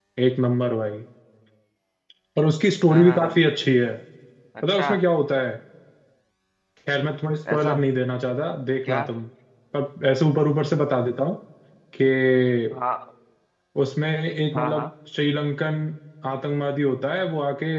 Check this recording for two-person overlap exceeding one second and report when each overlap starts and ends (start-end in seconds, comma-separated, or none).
none